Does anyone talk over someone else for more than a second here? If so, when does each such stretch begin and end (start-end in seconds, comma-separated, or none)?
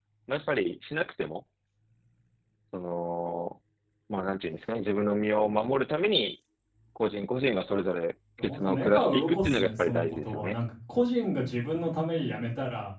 8.4-10.6